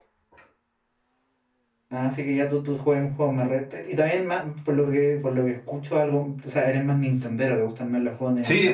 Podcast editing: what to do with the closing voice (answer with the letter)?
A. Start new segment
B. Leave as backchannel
A